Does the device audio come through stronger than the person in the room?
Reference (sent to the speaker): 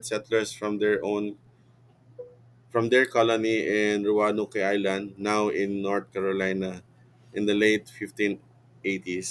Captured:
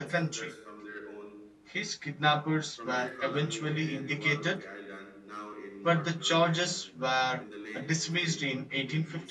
No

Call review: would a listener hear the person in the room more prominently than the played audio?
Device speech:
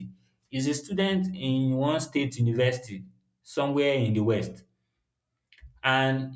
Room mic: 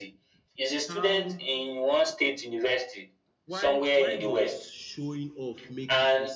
No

